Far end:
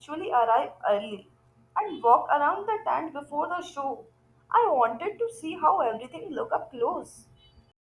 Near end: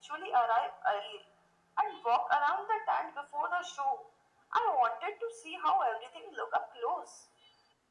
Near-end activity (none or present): none